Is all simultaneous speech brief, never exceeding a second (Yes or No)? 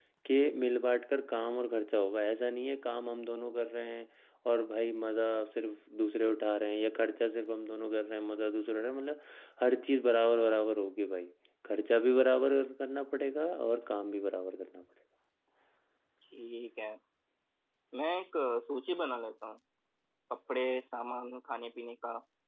Yes